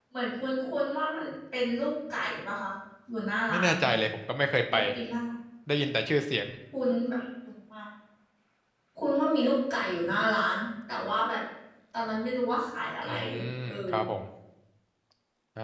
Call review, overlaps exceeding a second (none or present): none